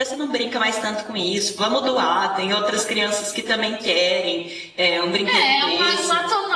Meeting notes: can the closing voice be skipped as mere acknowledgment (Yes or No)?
No